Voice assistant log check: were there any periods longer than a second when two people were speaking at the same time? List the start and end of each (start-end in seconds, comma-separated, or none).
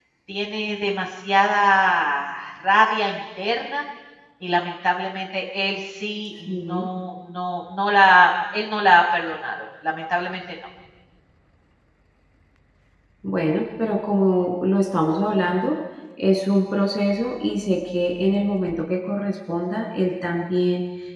none